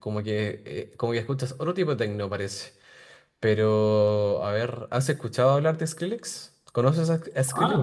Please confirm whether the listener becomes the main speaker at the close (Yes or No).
Yes